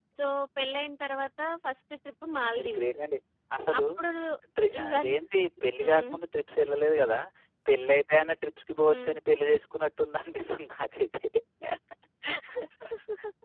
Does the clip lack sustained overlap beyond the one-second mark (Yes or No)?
Yes